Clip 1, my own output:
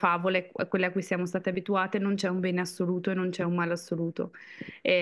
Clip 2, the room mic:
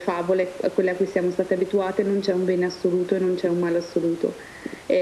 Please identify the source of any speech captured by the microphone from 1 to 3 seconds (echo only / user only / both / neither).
echo only